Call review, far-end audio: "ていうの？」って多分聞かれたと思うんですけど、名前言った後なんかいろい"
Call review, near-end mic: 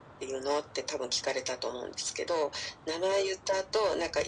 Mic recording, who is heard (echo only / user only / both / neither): echo only